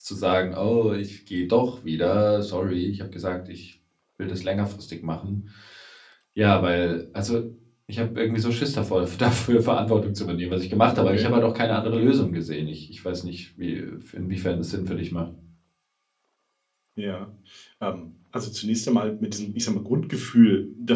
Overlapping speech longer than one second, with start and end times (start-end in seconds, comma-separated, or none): none